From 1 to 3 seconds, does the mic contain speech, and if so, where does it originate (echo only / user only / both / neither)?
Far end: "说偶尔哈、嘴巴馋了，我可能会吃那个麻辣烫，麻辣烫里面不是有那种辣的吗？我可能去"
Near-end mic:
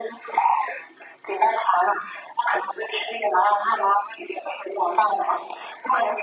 echo only